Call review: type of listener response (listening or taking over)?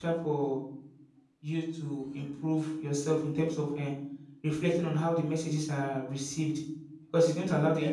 listening